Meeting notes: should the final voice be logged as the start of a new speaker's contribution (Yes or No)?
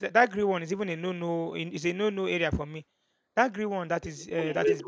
Yes